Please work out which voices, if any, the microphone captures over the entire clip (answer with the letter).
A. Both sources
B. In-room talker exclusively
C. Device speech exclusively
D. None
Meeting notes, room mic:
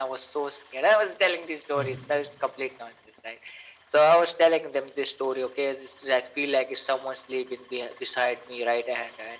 A